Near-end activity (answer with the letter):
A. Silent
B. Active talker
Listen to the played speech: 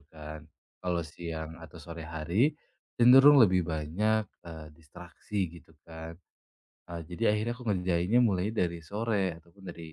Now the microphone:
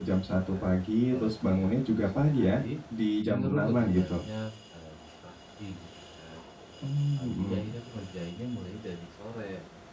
B